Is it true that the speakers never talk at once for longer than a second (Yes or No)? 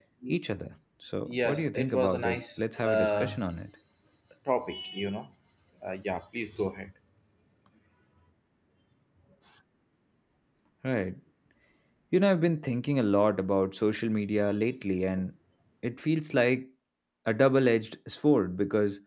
No